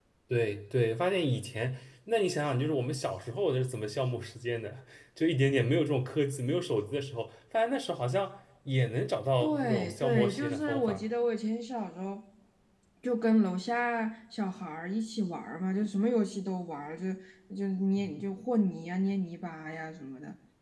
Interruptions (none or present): present